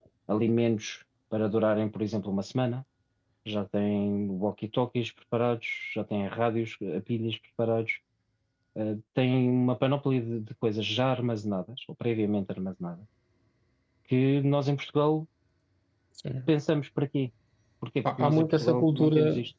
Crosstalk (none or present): present